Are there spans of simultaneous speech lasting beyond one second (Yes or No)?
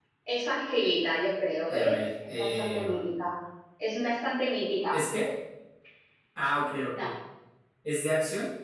Yes